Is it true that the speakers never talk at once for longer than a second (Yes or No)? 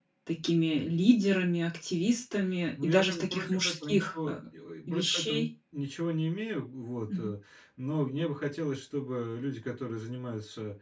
No